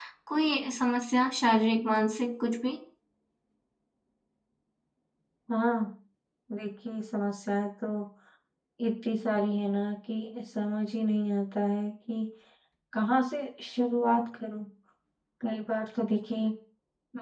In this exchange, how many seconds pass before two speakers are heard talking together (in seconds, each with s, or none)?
none